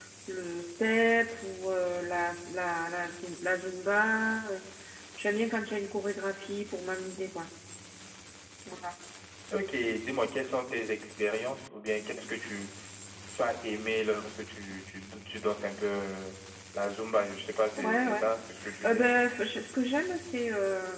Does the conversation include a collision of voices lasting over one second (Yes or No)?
No